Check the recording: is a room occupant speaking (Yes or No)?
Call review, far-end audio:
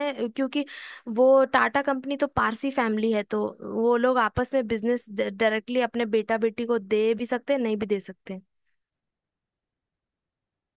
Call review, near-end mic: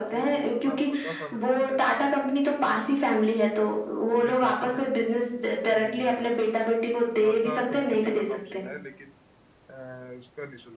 Yes